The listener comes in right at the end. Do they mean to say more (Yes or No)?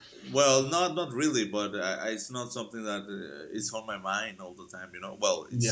Yes